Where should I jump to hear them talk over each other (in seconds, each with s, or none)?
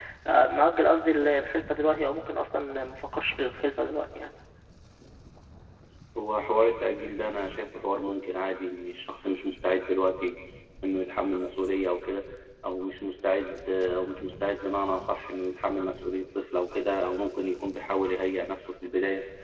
none